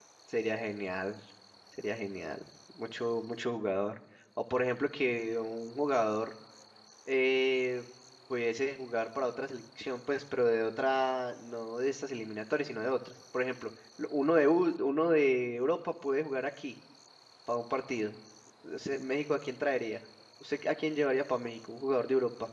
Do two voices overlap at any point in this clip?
No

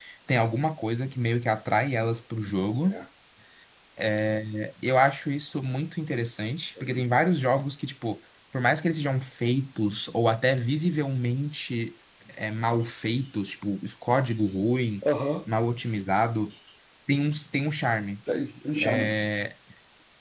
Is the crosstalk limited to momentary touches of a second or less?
Yes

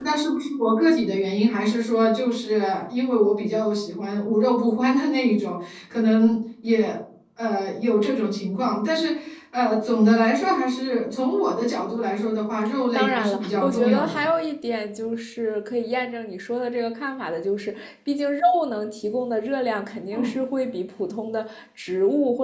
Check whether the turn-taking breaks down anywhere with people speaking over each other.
Yes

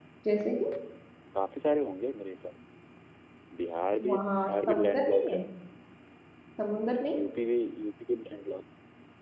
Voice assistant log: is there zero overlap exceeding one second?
No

